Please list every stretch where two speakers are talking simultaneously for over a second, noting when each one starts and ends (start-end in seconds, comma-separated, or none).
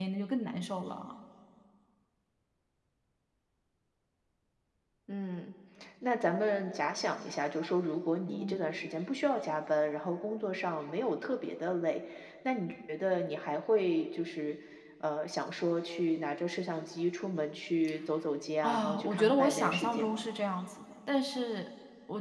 18.6-20.2